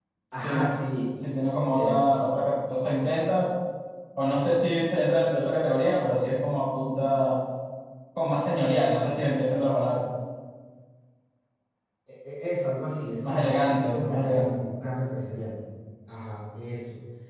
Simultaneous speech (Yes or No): Yes